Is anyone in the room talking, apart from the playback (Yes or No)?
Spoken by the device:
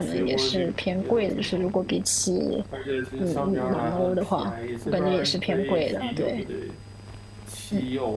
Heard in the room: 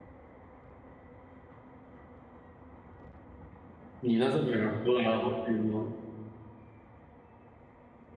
Yes